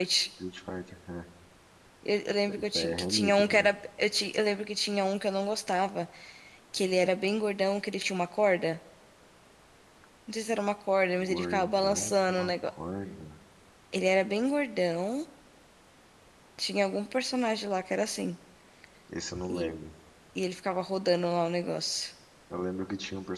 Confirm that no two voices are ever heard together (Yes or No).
No